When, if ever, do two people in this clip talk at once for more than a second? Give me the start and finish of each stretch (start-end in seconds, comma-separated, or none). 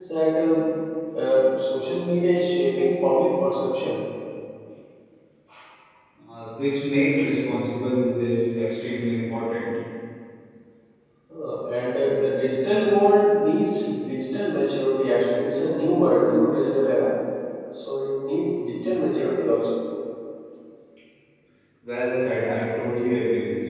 none